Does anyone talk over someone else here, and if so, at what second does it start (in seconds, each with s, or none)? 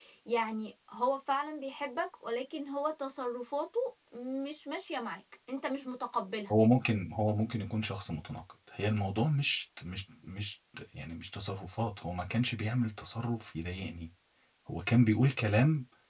none